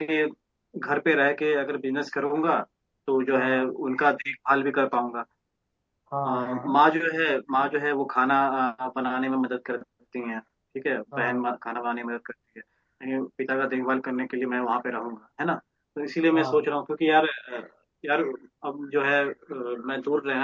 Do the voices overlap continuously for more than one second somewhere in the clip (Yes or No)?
No